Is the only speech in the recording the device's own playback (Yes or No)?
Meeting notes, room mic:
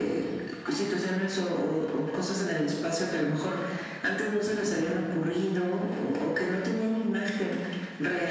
Yes